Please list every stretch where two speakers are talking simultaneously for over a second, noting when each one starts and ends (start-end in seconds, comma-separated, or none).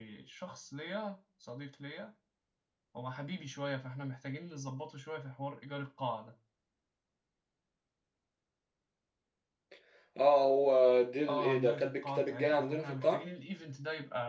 11.3-13.2